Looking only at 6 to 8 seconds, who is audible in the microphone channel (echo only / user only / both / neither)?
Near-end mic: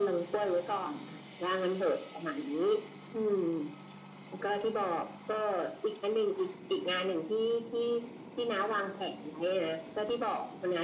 echo only